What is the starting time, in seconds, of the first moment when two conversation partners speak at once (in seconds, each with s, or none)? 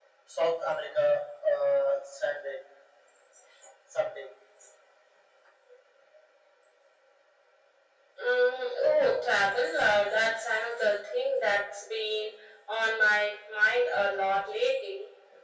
none